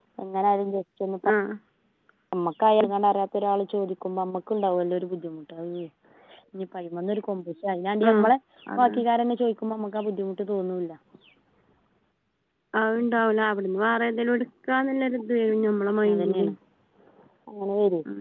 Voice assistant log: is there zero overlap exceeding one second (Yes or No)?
Yes